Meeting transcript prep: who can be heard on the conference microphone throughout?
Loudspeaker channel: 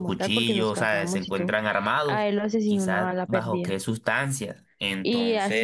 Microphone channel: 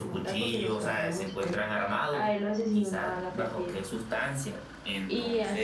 echo only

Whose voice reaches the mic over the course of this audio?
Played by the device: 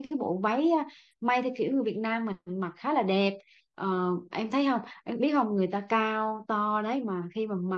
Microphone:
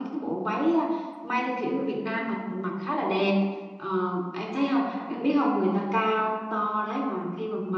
echo only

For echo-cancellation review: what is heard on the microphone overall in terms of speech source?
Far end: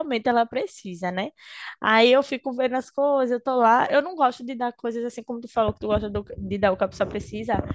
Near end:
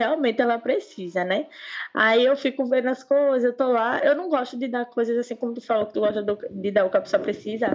echo only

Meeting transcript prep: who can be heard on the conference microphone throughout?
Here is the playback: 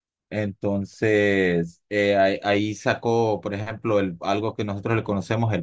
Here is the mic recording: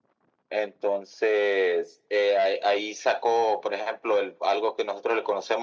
echo only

